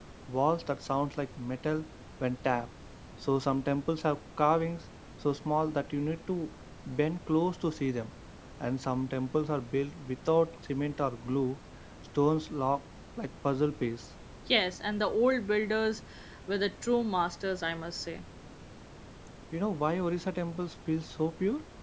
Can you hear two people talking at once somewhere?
No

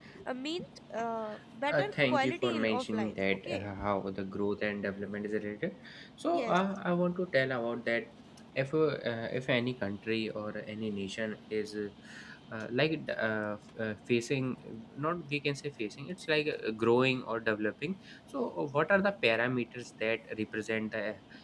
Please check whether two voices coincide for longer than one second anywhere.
Yes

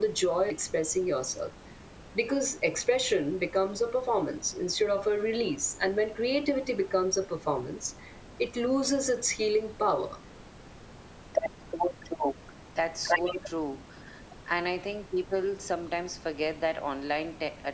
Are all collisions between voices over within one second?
Yes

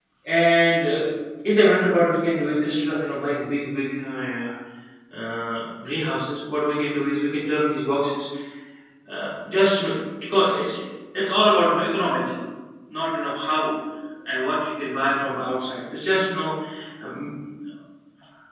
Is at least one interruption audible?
No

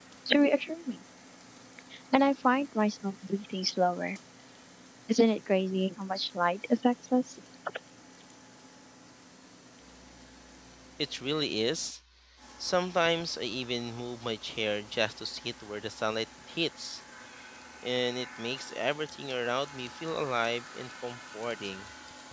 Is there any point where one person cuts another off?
No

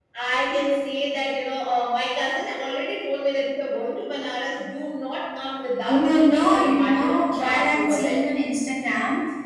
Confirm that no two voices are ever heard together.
No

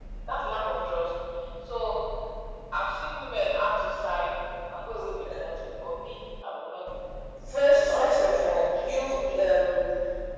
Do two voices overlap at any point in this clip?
Yes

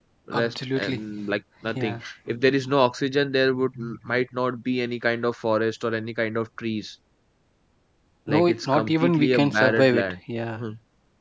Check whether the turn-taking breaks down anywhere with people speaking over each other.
Yes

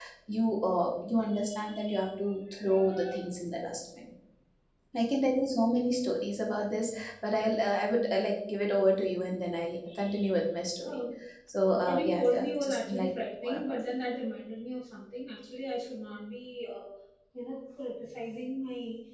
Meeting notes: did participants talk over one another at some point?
Yes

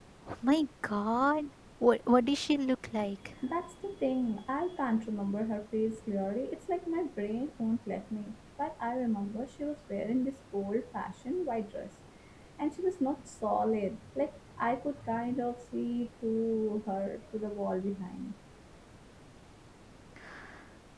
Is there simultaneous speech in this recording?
No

